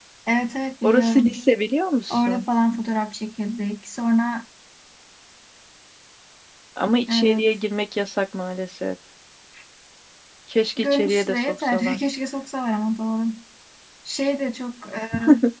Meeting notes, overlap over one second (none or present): present